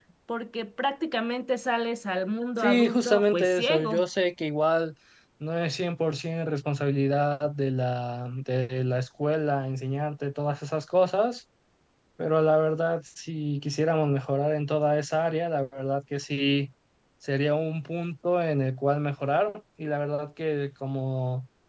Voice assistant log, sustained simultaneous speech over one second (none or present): present